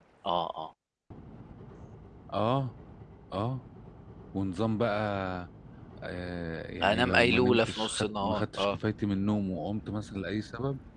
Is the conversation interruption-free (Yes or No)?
No